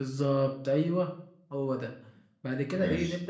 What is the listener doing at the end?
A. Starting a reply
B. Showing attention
B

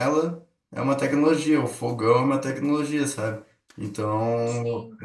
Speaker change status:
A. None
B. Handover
A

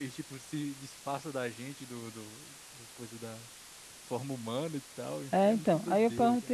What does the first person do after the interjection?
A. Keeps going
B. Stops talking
B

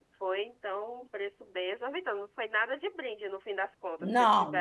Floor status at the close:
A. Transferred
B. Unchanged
A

